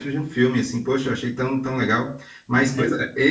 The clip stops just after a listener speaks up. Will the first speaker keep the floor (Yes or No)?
Yes